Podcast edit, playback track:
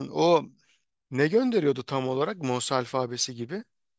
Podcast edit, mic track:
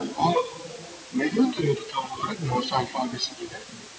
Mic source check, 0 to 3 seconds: echo only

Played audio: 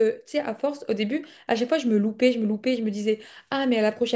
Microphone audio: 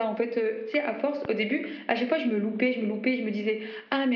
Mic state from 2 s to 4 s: echo only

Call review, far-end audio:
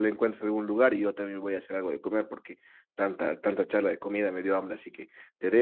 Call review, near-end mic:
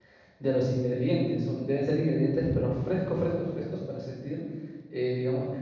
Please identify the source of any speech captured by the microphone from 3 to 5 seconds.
user only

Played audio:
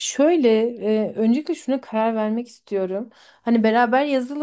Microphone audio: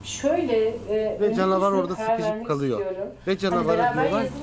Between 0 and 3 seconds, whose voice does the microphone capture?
both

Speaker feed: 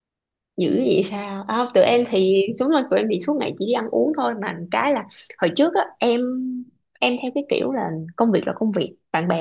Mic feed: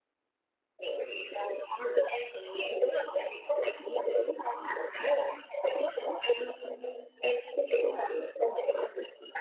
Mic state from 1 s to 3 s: echo only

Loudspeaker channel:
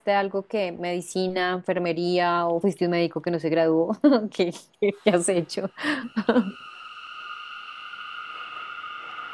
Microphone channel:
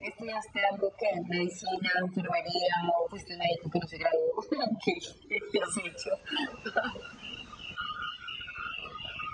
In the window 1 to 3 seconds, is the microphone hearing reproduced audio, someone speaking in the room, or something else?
echo only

